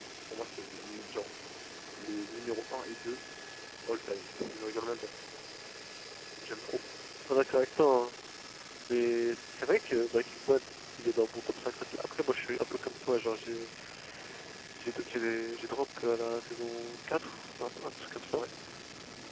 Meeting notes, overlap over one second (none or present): none